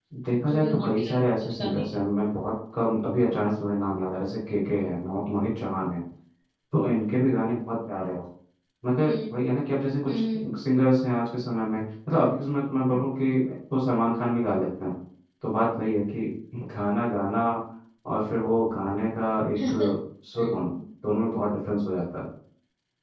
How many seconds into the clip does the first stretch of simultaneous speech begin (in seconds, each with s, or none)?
0.5 s